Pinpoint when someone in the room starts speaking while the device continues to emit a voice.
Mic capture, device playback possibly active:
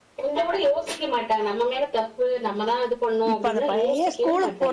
3.3 s

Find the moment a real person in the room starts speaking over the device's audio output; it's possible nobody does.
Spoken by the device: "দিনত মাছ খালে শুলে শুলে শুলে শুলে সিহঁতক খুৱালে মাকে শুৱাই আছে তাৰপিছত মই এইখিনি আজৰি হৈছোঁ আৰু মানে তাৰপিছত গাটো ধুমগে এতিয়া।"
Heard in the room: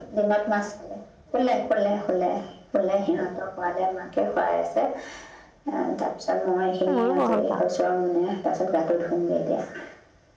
6.9 s

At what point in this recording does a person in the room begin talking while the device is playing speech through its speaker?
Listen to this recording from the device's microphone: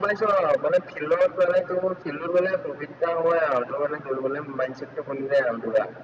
none

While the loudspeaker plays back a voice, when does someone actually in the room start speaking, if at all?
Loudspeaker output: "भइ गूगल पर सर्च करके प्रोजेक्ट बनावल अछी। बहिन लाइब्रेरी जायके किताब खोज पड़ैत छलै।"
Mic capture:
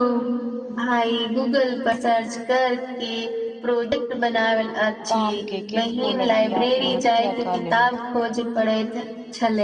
5.1 s

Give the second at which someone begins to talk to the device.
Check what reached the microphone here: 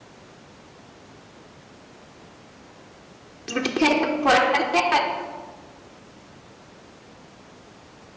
3.5 s

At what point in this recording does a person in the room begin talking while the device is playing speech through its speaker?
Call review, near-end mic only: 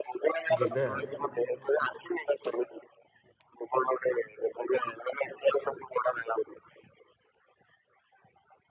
0.6 s

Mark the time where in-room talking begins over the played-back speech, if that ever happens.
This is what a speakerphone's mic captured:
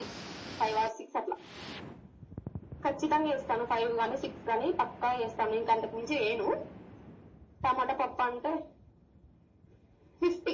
none

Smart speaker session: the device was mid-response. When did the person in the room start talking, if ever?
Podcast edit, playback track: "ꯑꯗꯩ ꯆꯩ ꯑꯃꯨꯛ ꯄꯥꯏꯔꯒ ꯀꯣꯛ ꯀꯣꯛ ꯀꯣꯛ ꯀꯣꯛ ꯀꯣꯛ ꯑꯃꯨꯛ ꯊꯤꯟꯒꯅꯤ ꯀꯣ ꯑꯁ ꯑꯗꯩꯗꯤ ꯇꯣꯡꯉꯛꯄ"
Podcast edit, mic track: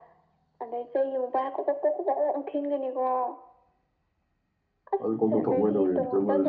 5.0 s

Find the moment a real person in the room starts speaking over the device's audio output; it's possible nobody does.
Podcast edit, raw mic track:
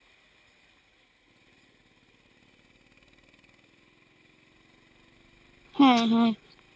5.8 s

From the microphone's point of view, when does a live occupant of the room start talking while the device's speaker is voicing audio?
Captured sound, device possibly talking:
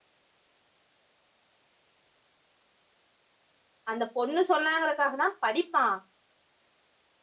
3.9 s

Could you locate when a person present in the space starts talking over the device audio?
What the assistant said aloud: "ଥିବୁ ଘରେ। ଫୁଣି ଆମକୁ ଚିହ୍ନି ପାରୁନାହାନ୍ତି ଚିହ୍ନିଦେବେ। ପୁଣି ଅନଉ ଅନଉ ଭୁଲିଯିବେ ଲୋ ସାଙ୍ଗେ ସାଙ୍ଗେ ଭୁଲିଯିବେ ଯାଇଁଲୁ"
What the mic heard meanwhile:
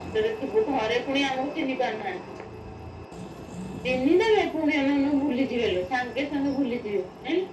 none

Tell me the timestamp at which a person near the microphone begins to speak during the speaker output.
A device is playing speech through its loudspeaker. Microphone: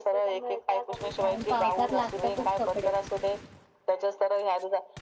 1.2 s

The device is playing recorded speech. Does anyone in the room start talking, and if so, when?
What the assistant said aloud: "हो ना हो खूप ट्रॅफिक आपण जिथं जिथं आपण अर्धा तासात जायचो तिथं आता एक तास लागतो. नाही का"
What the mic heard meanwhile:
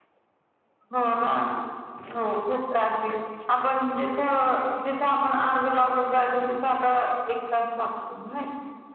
none

